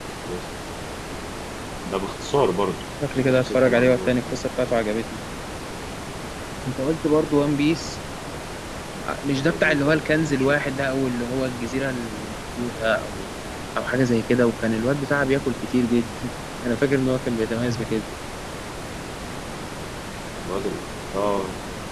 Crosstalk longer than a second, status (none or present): present